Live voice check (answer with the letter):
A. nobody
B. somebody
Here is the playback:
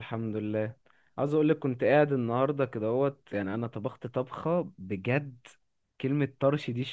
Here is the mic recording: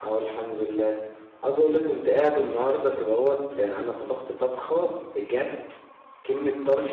A